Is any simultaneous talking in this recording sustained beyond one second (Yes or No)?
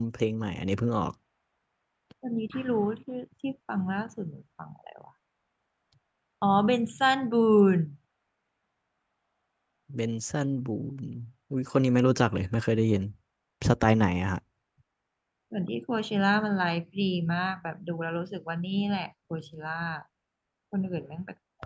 No